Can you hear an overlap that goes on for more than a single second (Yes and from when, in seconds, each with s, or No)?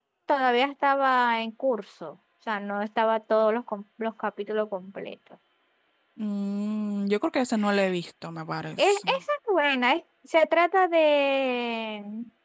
No